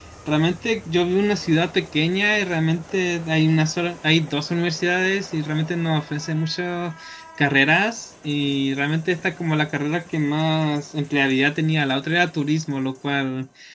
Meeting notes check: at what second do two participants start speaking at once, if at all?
none

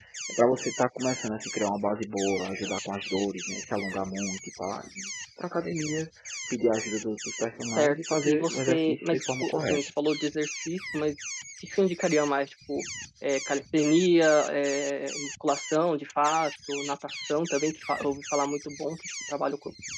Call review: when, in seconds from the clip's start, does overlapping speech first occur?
7.8 s

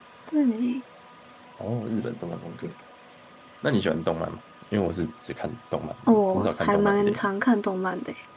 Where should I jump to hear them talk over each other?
6.1 s

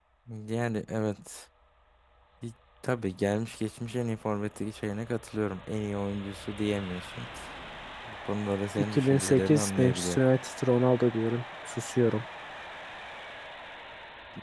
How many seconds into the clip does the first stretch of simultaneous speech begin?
8.8 s

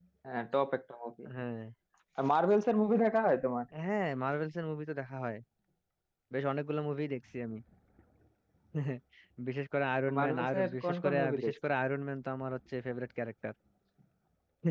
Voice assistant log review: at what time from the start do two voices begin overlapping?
10.2 s

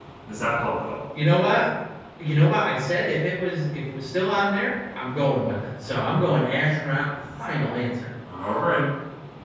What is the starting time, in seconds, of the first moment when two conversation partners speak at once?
none

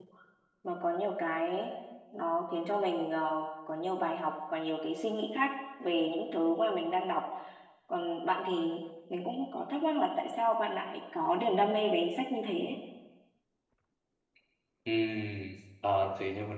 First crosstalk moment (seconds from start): none

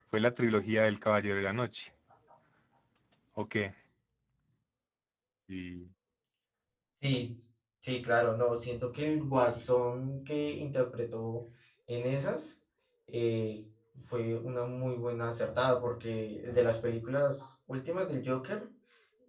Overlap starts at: none

